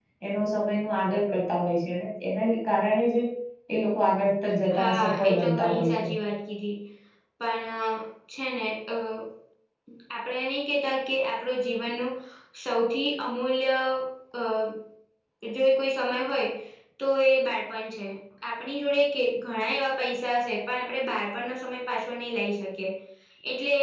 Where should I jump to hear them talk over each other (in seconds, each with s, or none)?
4.7 s